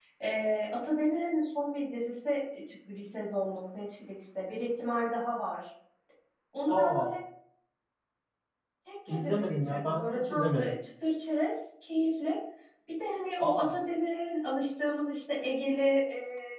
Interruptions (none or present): present